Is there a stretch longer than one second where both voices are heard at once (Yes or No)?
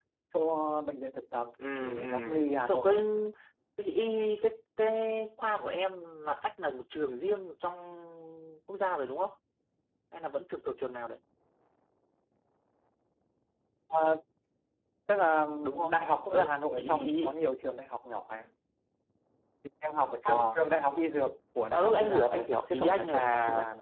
Yes